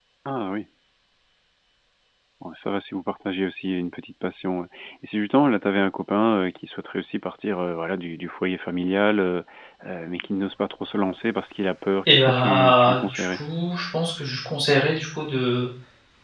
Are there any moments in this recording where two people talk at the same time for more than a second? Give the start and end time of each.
12.1-13.4

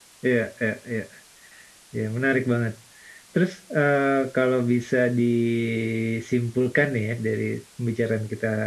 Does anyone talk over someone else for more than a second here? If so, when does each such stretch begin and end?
none

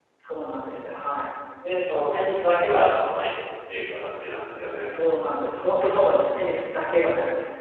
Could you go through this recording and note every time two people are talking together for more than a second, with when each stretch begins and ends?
none

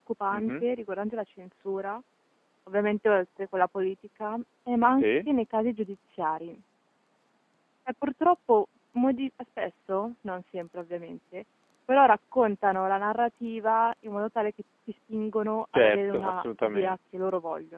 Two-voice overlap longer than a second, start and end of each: 15.7-16.9

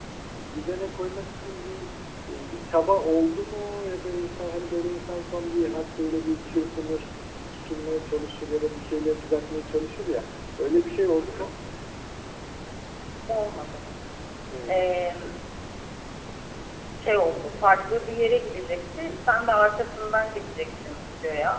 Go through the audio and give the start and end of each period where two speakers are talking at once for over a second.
none

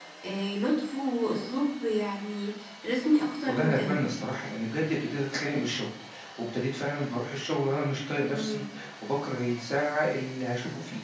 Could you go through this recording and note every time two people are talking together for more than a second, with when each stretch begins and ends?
none

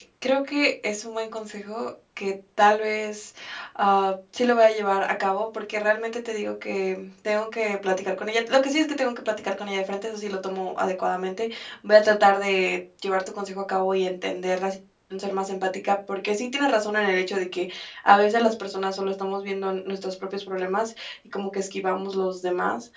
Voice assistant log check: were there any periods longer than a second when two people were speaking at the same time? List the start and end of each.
none

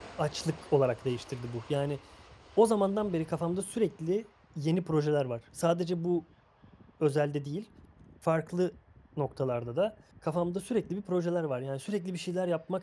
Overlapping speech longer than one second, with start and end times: none

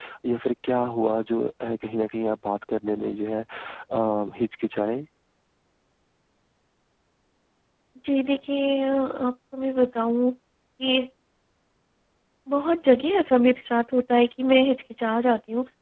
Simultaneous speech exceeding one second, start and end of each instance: none

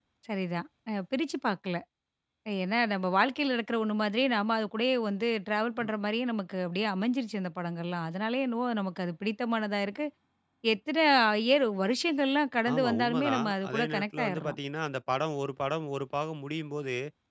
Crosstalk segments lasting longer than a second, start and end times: 12.7-14.6

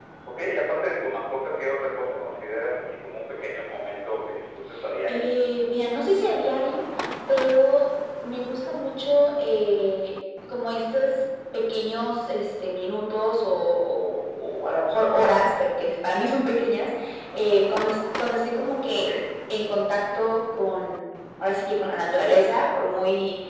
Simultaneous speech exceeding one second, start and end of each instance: none

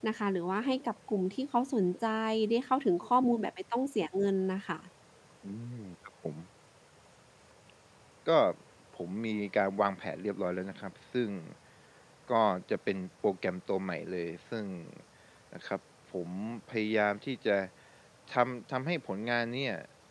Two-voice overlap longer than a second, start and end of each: none

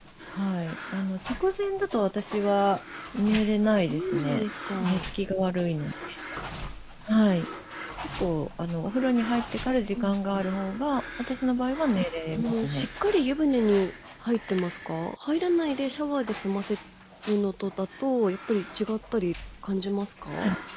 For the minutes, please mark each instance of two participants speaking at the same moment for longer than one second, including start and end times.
3.9-5.1

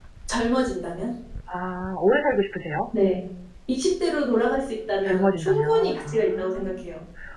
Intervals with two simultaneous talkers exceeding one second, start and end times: 5.1-6.8

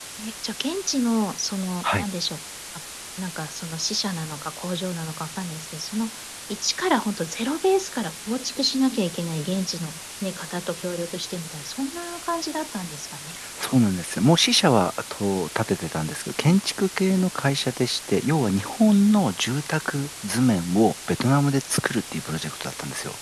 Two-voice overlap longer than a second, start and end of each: none

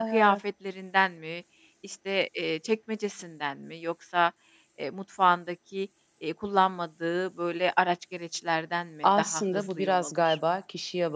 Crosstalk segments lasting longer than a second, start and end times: 9.0-10.4

